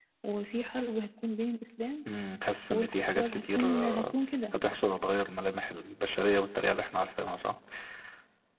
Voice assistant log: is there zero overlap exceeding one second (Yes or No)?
No